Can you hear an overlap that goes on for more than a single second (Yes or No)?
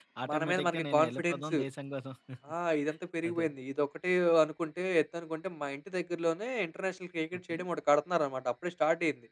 Yes